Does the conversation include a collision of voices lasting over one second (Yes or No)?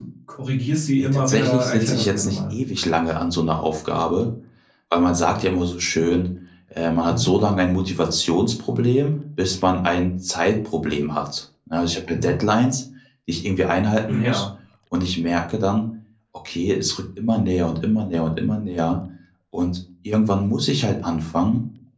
Yes